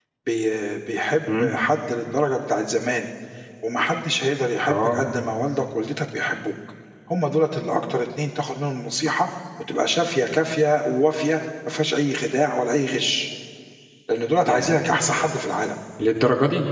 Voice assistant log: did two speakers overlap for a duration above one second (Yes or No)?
No